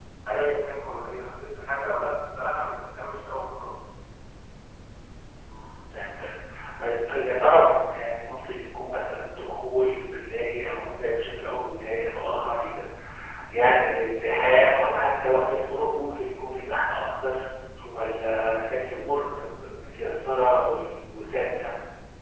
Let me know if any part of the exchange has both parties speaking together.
No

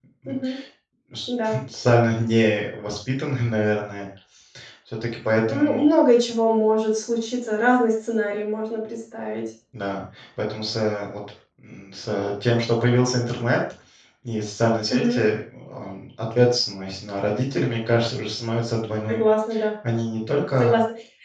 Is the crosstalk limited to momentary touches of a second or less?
Yes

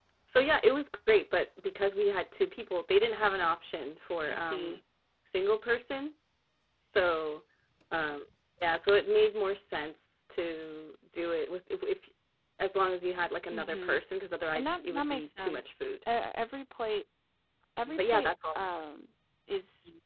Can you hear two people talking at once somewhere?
Yes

